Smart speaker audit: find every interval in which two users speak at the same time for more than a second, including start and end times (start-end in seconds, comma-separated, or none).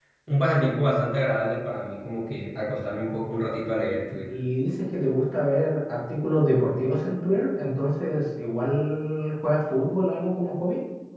none